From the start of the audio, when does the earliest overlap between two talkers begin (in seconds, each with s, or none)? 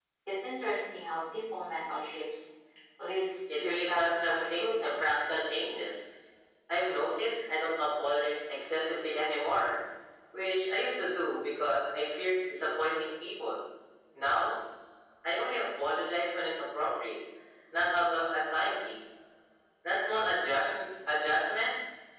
3.6 s